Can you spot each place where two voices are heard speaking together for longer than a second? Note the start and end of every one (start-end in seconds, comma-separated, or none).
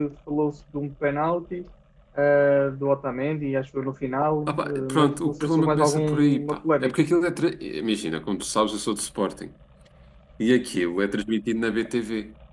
4.5-7.0